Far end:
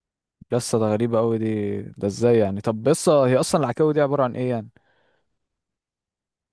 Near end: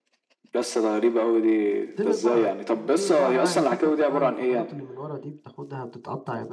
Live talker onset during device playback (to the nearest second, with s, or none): 2 s